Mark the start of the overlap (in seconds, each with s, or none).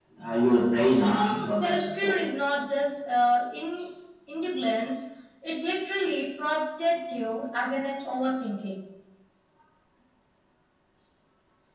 0.8 s